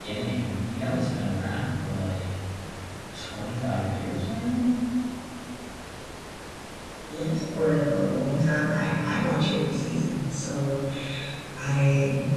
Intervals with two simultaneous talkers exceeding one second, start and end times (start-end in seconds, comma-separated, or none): none